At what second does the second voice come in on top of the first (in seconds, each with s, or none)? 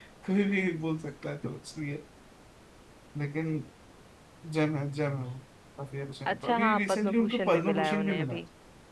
6.3 s